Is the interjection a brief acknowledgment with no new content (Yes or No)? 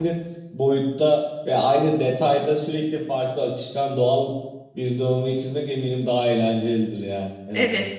No